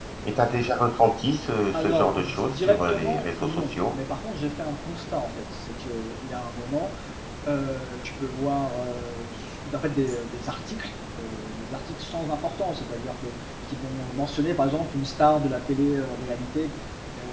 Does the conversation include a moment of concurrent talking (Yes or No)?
Yes